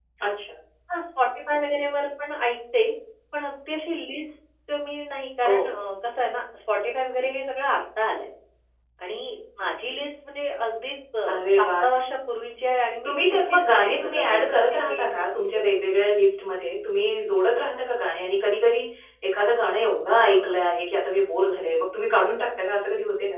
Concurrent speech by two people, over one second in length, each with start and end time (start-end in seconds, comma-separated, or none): 13.0-15.7